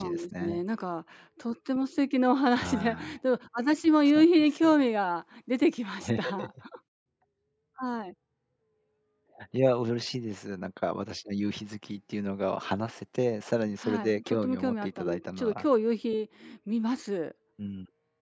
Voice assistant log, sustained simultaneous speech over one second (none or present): present